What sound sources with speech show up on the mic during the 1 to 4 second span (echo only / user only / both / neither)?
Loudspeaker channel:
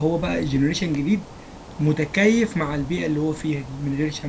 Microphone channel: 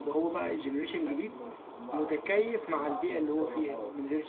both